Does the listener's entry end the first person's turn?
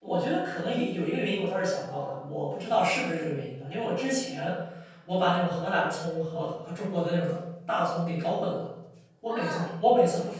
No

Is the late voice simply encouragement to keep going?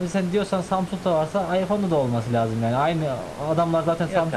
Yes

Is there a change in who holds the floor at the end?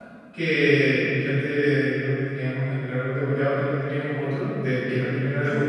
No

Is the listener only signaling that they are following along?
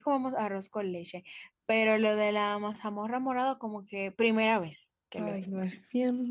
No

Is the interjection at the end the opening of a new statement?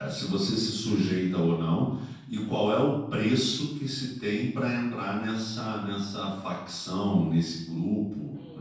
Yes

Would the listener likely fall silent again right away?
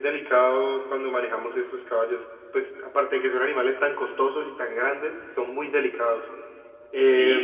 No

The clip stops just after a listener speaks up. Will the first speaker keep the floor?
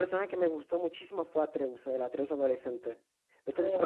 No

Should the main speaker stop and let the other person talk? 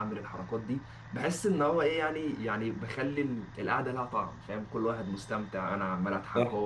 No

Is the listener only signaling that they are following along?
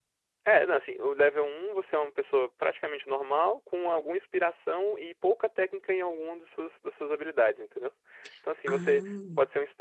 Yes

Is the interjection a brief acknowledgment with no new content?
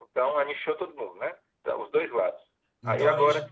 Yes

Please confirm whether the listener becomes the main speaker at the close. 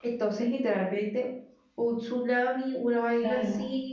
Yes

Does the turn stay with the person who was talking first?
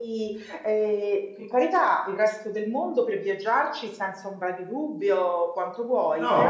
No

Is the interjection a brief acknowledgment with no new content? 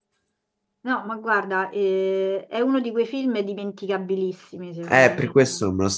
No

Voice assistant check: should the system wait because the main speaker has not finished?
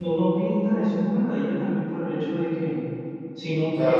No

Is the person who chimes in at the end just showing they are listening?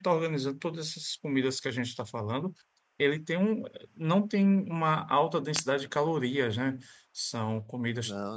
Yes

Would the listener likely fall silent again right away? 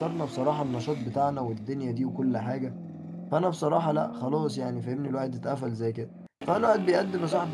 Yes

